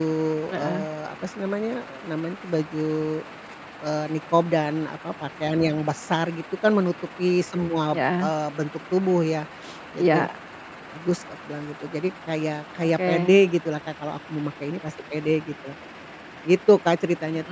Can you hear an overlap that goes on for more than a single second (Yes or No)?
No